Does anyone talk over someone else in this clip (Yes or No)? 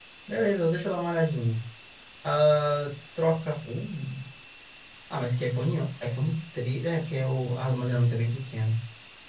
No